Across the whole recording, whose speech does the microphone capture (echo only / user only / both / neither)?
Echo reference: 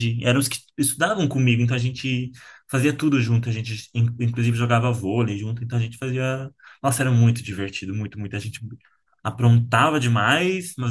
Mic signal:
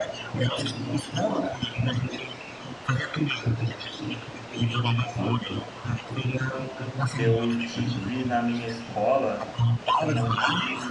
both